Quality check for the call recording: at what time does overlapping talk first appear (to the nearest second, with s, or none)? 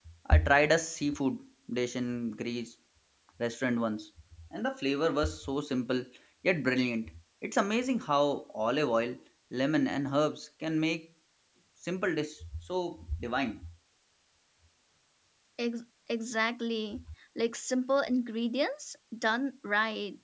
none